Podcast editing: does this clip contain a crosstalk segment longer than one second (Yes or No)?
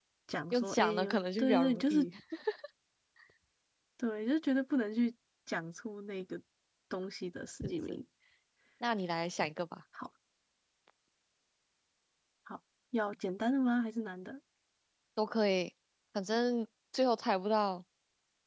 Yes